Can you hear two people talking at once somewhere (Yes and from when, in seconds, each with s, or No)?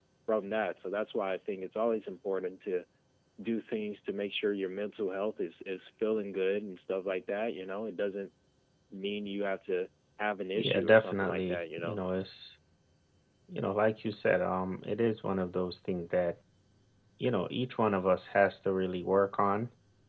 Yes, from 10.6 s